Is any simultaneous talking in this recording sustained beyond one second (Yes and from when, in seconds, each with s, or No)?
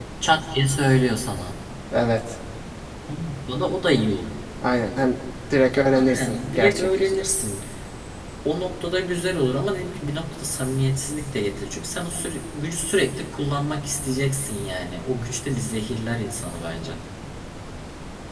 Yes, from 5.9 s